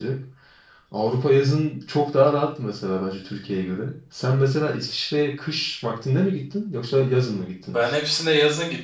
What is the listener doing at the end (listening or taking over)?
taking over